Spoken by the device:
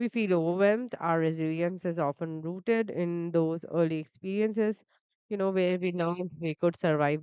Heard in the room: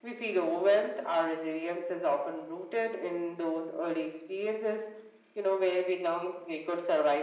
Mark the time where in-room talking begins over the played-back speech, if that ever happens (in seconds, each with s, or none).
none